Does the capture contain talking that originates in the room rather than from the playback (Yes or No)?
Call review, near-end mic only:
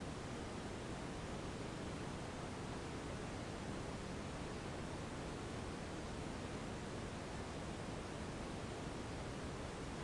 No